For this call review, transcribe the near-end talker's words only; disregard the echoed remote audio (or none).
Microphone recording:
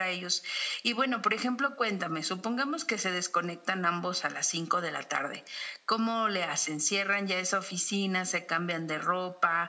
none